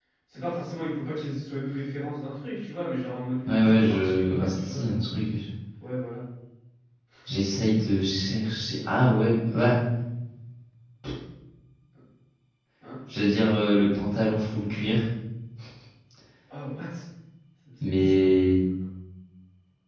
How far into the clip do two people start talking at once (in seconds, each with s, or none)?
3.5 s